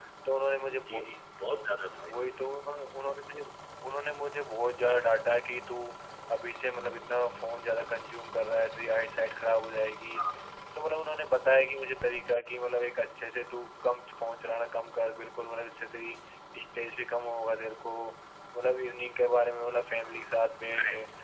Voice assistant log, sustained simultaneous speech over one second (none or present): none